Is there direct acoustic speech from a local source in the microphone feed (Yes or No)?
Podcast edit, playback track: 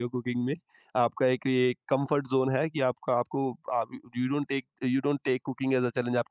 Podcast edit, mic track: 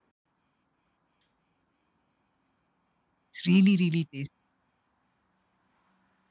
Yes